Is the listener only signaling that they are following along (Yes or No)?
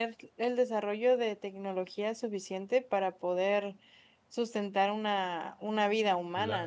No